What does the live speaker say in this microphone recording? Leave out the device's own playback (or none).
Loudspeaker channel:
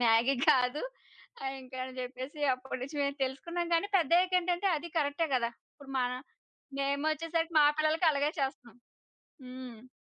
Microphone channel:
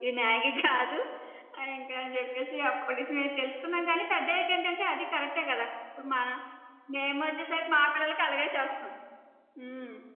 none